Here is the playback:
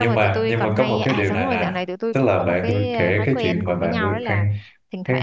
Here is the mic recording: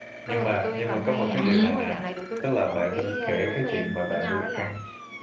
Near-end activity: present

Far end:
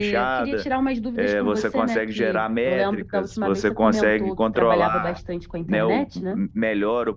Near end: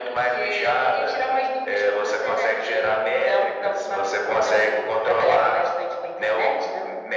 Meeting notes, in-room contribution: none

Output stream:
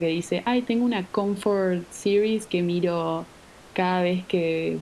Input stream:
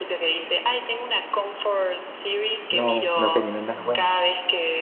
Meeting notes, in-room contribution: present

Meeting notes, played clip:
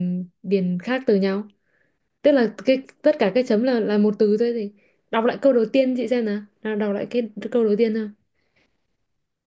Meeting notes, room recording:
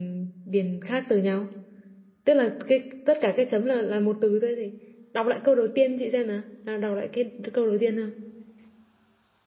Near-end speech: none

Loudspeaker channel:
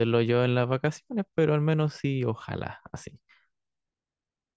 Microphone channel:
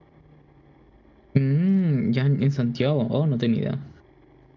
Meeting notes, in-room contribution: present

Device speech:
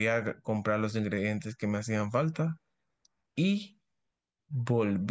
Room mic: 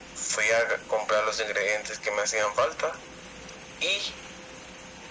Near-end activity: none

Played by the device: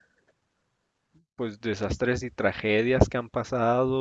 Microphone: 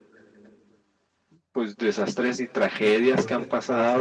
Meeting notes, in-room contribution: present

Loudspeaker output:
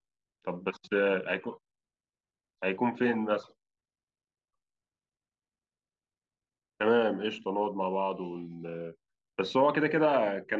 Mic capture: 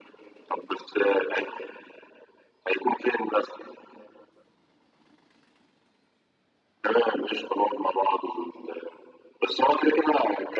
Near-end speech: none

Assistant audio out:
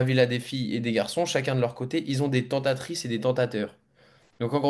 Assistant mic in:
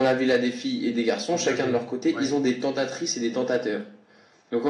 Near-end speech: present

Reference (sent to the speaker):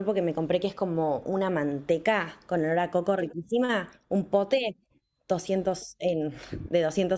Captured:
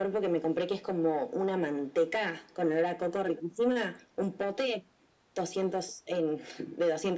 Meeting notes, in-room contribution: none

